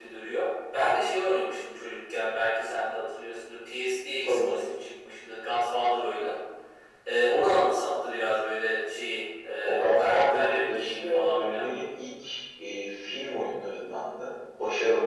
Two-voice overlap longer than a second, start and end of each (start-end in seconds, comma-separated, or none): 9.6-11.6